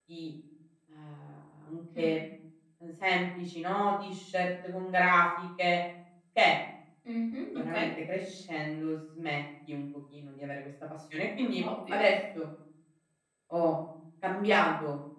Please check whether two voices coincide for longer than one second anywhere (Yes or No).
No